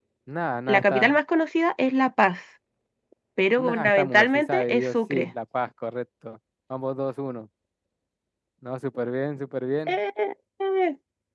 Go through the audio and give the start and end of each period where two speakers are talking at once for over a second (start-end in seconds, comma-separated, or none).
3.6-5.3